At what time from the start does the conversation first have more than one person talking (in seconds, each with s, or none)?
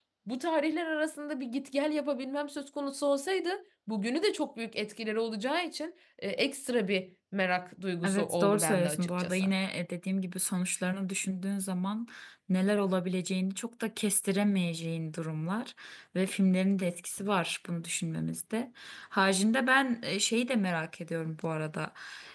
8.0 s